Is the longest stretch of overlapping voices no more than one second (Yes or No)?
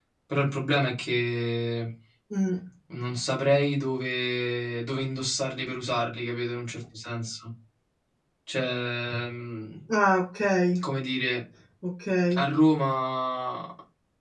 Yes